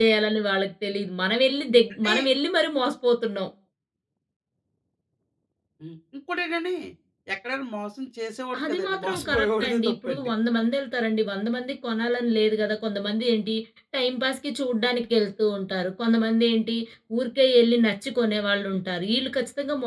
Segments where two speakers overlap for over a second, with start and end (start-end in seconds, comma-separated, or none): 8.6-10.3